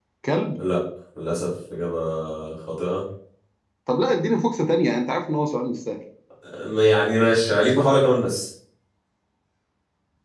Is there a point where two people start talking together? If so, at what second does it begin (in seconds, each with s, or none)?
none